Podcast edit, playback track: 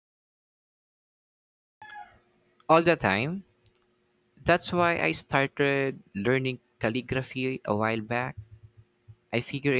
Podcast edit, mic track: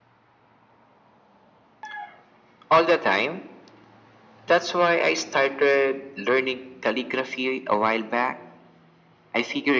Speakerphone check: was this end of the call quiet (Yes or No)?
Yes